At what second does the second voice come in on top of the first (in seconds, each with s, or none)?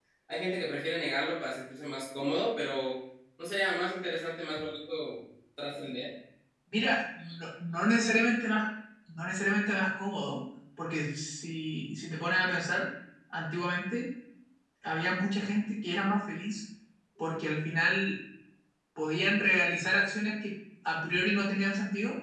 none